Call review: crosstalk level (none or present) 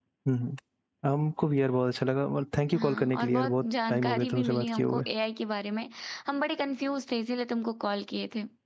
present